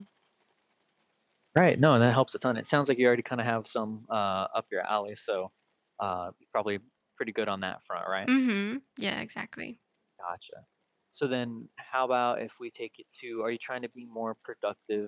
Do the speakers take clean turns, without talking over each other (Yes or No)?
Yes